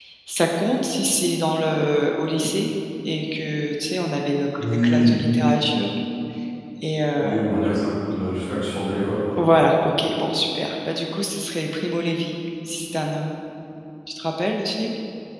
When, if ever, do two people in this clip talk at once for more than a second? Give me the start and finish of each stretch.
none

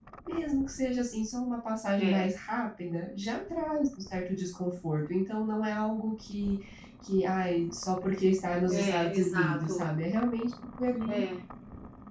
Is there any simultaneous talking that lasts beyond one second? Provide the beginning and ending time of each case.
8.6-9.9

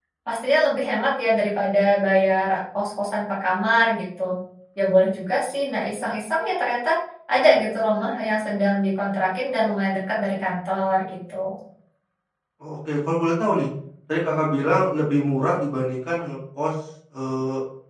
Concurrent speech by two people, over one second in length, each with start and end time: none

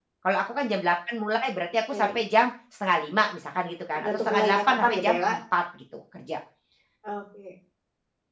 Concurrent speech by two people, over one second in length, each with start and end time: 4.0-5.4

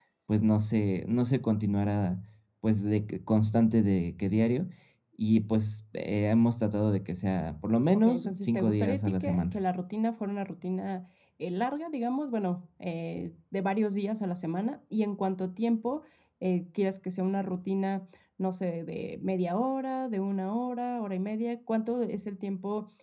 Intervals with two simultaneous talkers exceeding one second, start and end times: 7.9-9.5

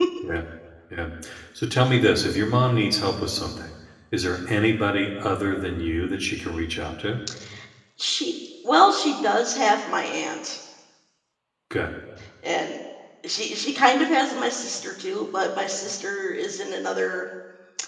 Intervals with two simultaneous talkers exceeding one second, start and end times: none

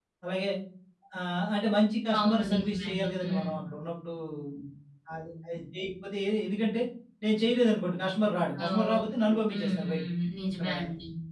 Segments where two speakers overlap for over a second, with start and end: 2.2-3.5, 8.6-10.0

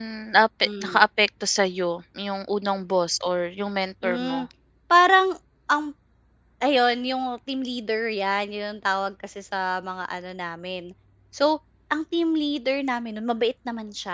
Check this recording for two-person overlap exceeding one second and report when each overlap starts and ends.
none

